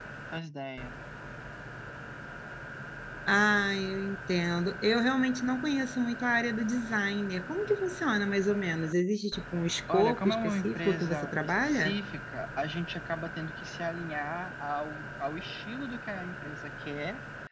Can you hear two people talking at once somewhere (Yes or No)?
Yes